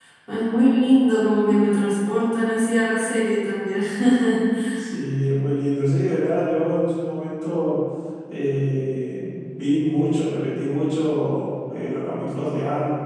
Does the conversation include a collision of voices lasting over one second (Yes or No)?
No